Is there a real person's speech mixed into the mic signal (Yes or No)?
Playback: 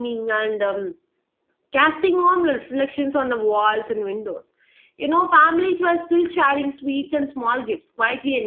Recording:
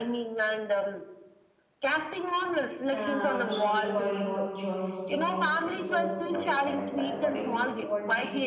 Yes